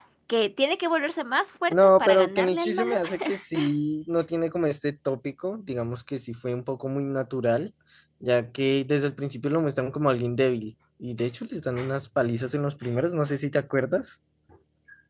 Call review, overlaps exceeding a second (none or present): present